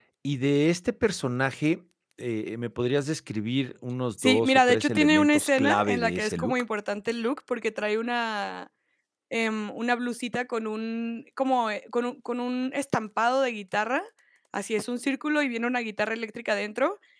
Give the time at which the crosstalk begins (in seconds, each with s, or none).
4.2 s